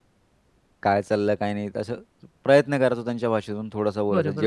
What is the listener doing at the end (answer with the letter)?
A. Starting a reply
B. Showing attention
A